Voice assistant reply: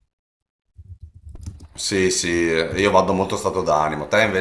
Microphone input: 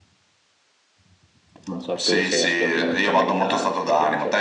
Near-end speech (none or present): present